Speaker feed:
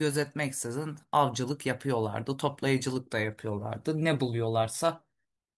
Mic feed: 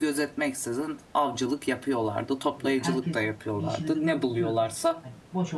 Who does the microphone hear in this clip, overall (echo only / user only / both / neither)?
both